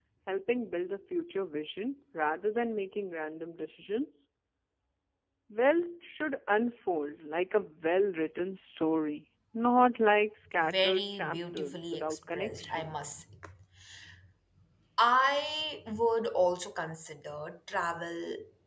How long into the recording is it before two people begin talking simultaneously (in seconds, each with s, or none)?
10.6 s